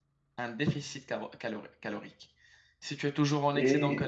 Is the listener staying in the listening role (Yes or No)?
Yes